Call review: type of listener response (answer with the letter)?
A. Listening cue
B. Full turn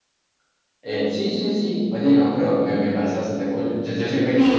B